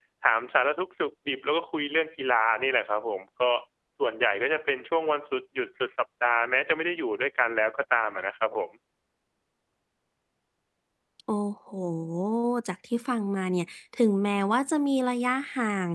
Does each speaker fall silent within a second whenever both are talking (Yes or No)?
Yes